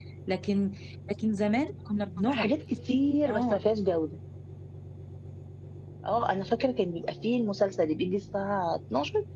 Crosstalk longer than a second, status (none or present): none